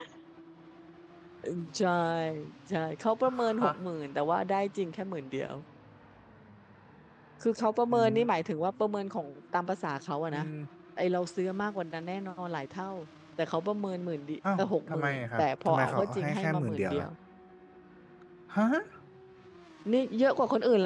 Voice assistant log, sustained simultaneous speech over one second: present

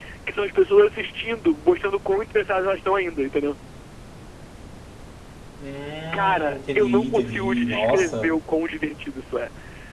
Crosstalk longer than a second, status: present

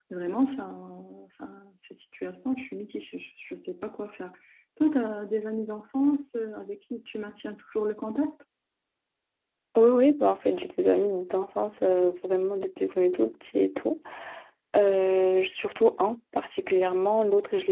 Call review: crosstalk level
none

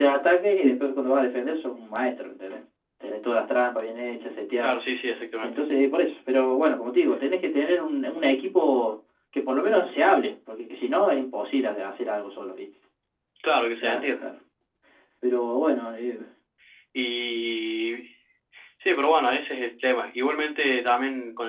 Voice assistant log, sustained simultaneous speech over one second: none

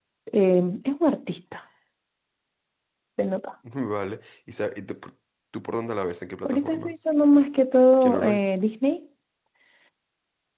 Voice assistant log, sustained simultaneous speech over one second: none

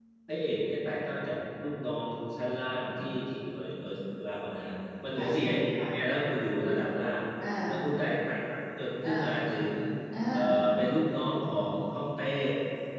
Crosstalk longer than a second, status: none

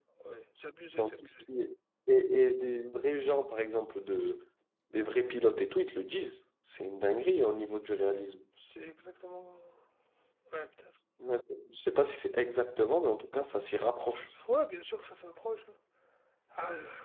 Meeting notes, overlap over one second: none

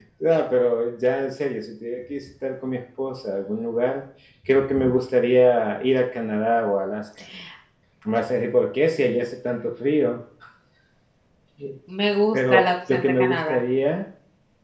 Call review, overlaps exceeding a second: present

